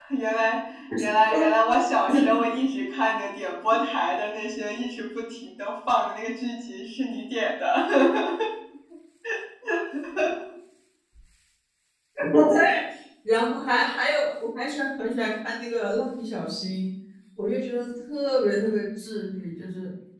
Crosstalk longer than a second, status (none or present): none